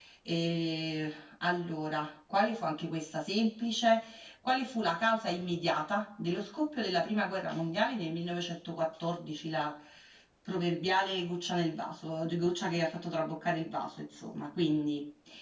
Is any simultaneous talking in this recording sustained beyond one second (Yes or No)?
No